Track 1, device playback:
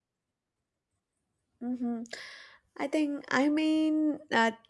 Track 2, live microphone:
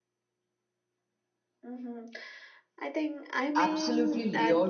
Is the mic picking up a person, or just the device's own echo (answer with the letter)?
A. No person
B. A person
B